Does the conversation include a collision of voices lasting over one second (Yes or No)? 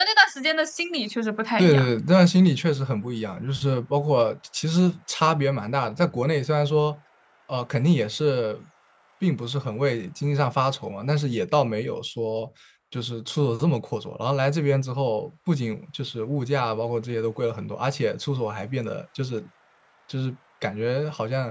No